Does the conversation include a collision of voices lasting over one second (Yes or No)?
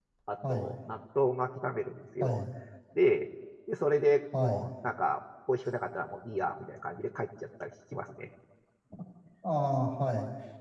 No